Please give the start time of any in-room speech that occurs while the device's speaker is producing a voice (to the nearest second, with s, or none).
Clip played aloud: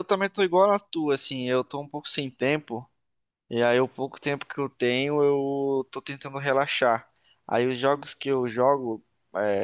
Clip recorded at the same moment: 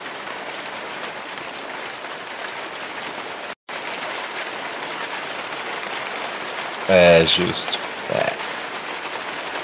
7 s